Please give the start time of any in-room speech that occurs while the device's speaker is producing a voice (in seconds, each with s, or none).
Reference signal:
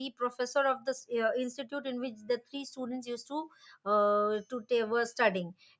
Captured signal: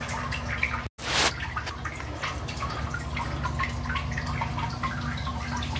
none